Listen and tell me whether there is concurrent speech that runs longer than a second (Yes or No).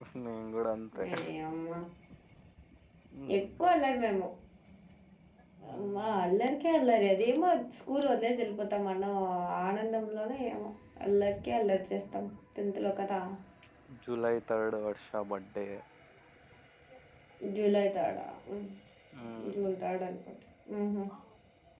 No